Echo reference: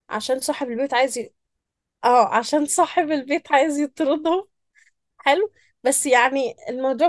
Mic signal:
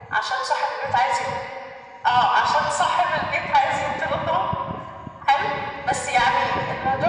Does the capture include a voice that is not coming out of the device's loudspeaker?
No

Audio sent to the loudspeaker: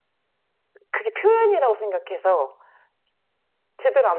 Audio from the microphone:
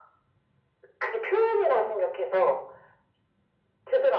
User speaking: No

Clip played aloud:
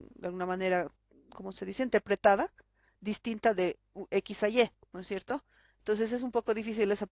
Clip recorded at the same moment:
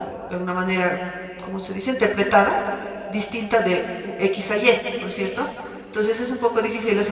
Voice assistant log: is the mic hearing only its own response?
Yes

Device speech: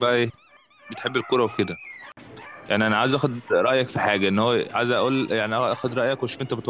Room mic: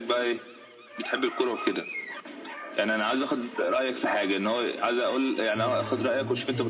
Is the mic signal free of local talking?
No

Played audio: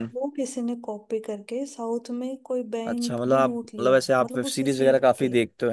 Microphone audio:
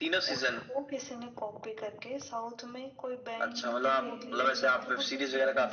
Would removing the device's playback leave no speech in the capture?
No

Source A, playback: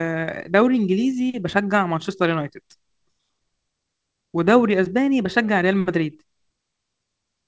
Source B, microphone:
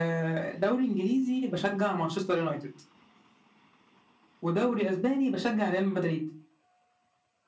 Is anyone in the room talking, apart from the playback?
No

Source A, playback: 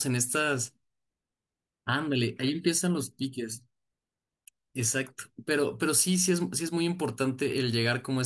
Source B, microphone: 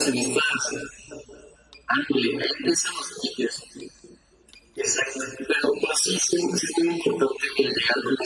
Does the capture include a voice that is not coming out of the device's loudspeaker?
No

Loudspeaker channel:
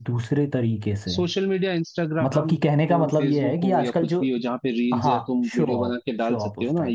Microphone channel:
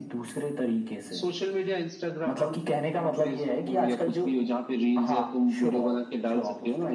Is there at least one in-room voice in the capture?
No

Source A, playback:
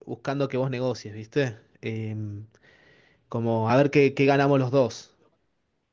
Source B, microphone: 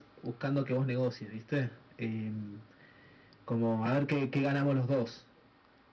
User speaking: No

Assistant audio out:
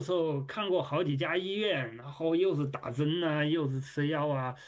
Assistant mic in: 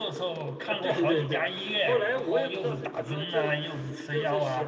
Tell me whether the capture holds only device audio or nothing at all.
No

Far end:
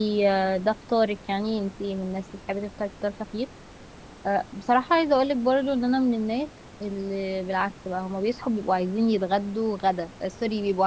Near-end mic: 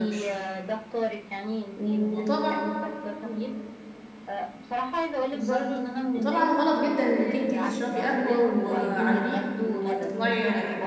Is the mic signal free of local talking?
No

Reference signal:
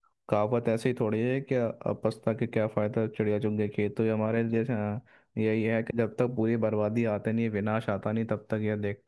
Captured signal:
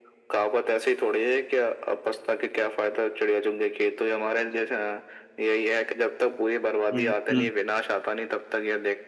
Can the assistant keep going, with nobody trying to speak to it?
No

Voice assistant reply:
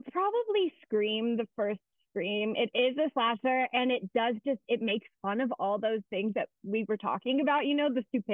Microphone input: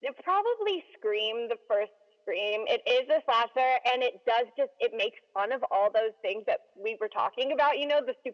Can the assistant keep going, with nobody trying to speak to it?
Yes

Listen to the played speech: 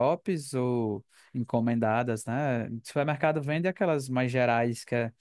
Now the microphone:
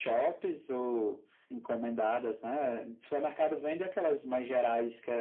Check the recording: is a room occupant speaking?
No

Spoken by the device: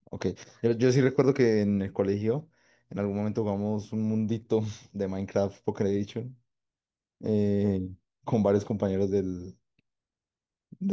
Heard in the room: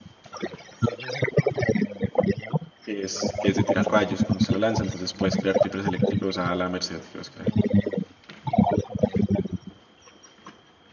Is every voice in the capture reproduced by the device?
No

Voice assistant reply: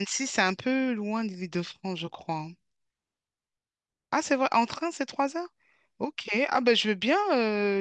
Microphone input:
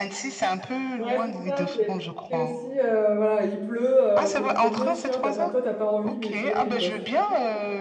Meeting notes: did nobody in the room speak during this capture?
No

